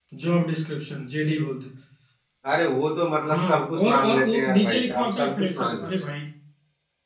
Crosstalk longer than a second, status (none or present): present